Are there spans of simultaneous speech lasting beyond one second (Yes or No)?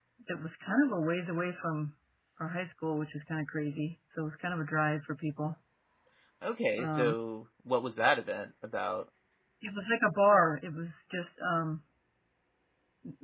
No